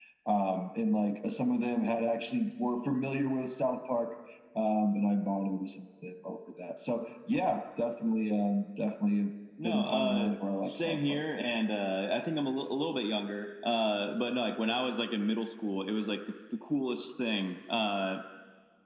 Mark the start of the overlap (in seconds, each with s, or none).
9.6 s